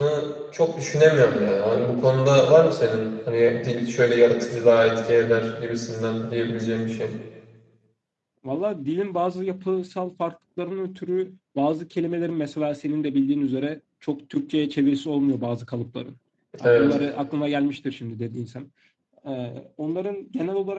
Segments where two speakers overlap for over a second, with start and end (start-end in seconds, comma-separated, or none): none